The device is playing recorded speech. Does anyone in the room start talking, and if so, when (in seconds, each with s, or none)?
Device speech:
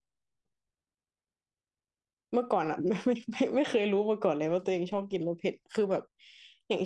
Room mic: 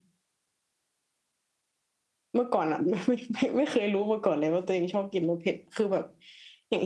none